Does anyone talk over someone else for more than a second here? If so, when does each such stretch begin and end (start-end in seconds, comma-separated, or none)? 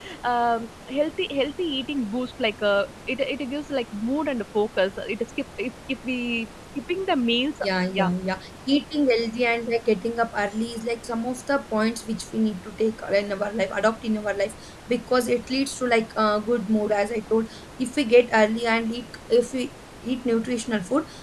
none